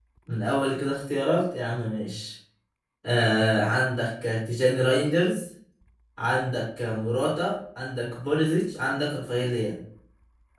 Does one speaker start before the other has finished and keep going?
No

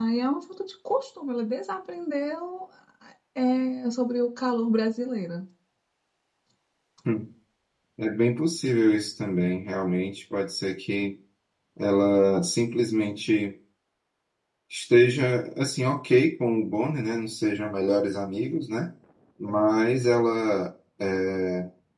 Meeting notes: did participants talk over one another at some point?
No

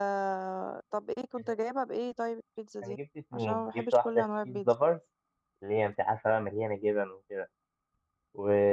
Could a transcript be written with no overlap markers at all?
No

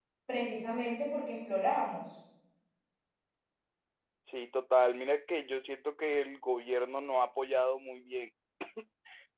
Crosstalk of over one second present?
No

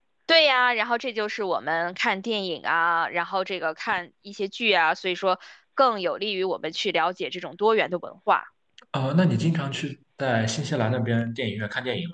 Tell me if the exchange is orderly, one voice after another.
Yes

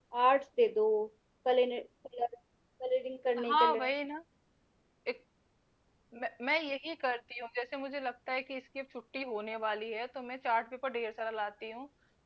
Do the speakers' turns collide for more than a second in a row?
No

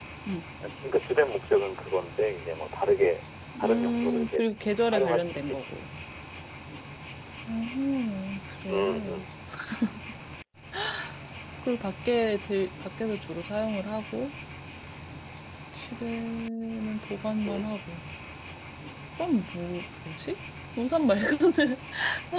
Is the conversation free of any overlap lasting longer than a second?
No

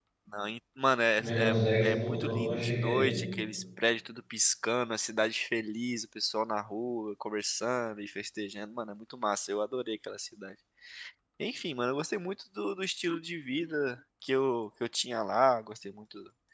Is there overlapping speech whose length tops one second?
Yes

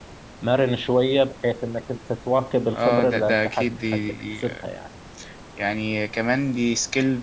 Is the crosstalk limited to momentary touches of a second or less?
No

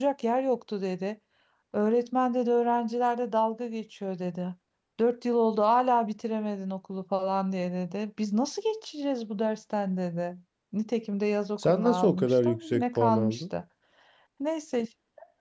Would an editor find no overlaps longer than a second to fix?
No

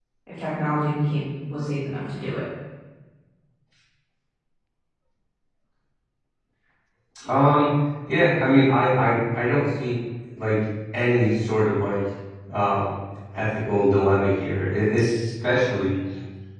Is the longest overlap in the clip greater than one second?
No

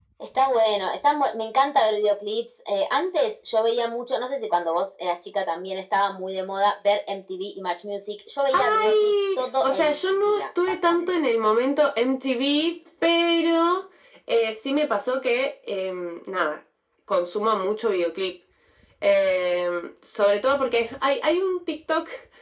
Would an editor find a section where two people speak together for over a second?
Yes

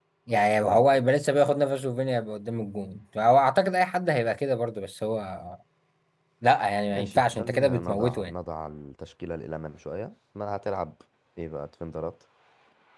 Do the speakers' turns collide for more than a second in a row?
Yes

